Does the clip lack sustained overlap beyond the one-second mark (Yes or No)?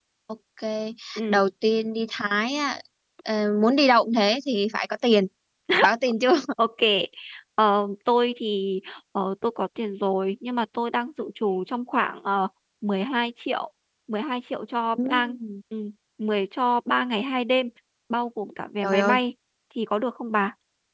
Yes